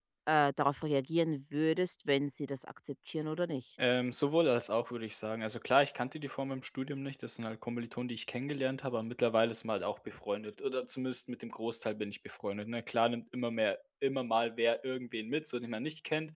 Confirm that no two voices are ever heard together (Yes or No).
Yes